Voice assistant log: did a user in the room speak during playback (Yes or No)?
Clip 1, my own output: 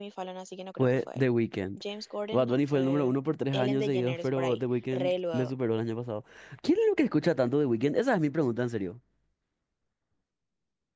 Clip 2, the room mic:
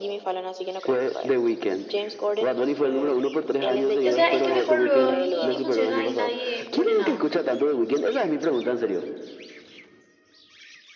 Yes